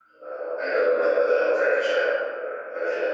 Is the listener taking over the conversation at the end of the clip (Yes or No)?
Yes